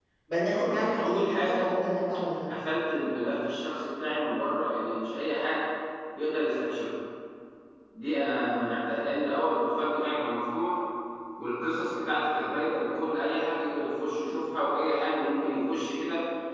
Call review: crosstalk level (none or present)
present